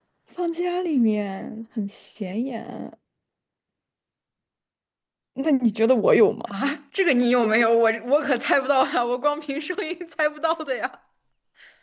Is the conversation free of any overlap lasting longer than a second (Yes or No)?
Yes